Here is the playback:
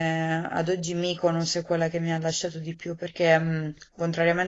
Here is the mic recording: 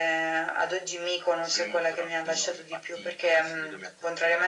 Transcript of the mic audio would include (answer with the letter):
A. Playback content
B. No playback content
A